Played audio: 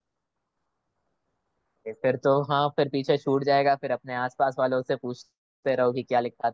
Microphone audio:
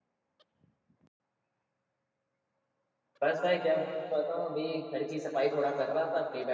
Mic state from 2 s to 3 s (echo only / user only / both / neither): neither